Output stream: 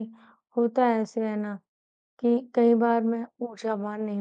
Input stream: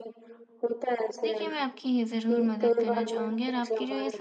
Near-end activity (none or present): present